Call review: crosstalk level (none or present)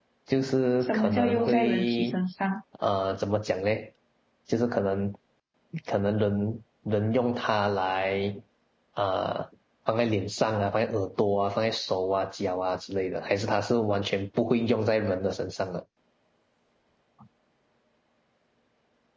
present